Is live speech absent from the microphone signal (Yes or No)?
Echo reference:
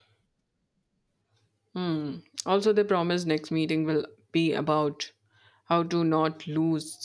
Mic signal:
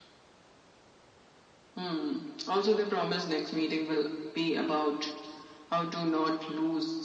Yes